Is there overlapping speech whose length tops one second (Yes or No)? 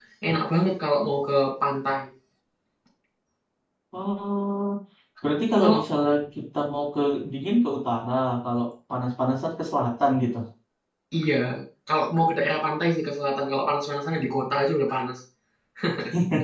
No